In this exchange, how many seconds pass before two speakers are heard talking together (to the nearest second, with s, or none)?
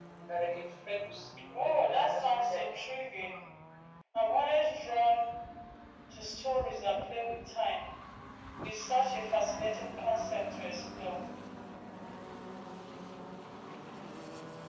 2 s